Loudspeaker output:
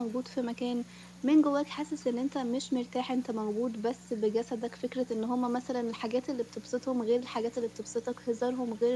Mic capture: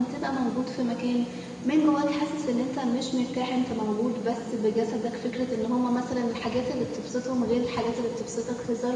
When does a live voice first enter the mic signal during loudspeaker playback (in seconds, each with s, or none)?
none